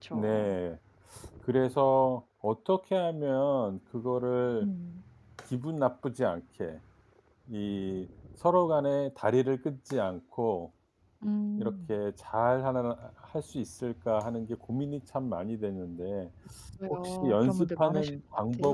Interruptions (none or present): present